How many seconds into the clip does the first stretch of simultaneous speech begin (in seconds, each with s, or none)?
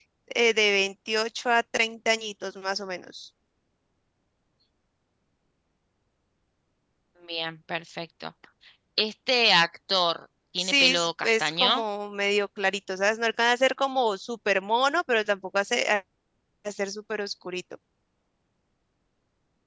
10.6 s